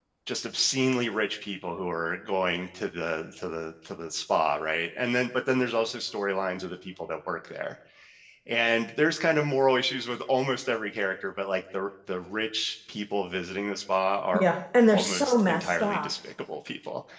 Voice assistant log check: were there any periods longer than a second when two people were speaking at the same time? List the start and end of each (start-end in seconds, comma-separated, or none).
14.9-16.1